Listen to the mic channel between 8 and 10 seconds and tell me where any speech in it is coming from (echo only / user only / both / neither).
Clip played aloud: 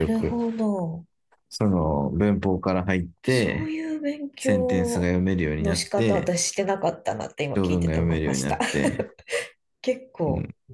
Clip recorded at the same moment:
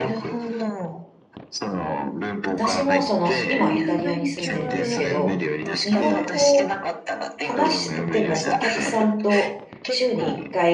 both